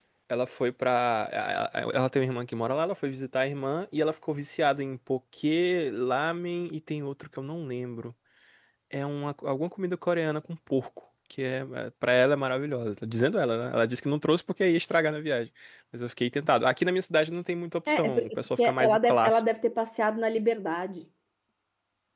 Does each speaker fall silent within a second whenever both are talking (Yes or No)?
No